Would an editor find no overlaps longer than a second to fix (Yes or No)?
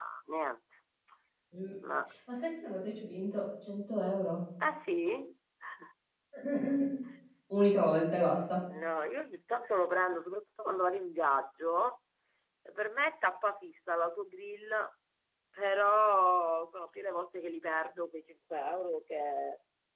Yes